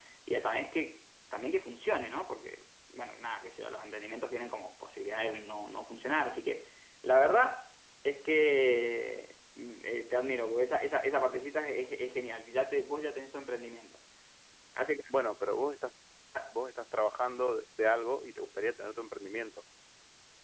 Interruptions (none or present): none